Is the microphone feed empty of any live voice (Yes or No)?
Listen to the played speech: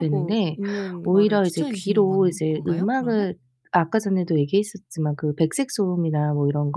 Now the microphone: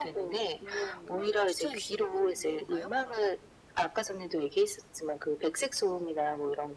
Yes